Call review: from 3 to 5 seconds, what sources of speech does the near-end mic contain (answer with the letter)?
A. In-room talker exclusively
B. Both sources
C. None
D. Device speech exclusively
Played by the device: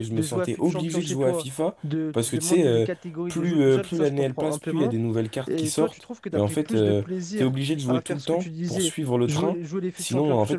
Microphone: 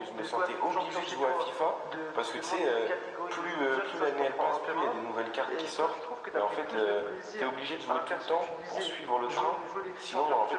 D